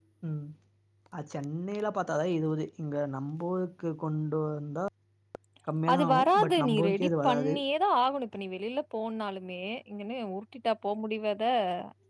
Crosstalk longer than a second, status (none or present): present